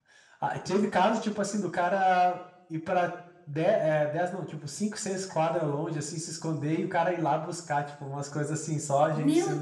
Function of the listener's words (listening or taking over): taking over